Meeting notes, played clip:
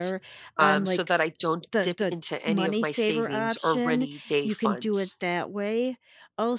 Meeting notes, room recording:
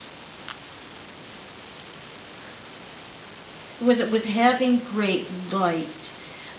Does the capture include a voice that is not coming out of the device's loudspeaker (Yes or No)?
Yes